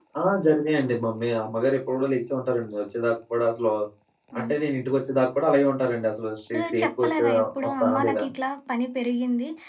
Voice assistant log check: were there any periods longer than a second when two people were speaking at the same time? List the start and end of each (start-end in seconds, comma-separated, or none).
6.5-8.3